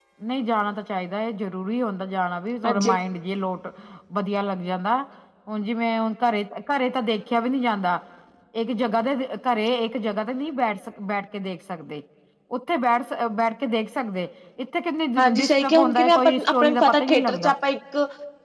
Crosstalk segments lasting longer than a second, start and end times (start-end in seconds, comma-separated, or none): 15.2-17.5